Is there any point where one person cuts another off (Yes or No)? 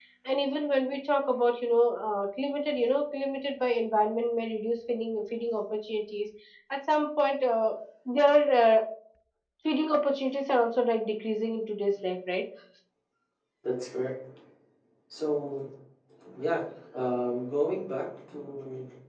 No